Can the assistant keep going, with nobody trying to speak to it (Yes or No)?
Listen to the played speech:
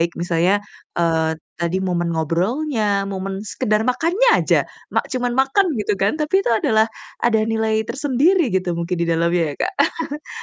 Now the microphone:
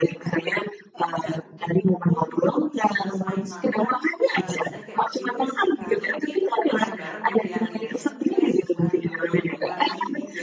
No